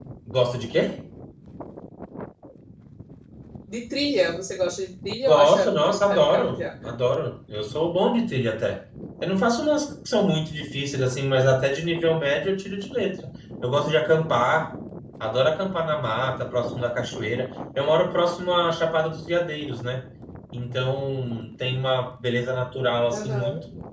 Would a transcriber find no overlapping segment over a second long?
No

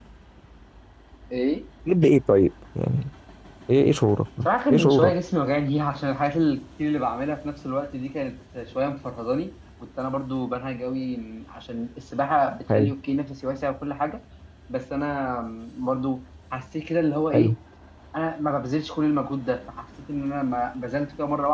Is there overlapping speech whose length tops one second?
No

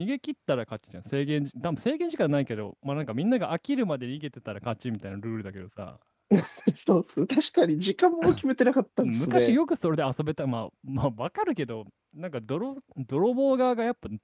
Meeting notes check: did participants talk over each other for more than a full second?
No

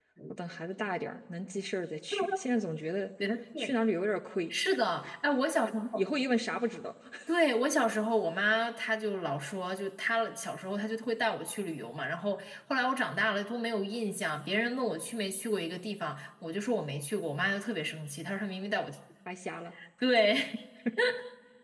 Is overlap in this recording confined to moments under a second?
Yes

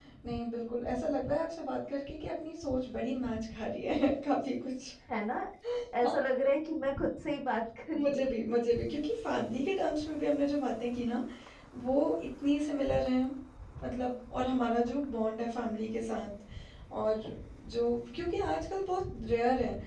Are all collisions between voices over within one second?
Yes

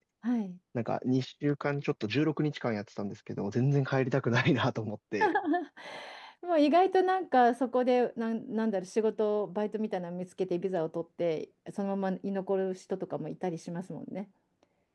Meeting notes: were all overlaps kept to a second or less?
Yes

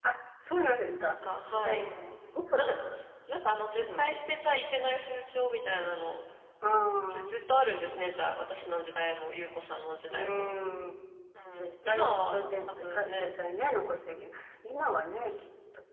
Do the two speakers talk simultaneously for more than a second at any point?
Yes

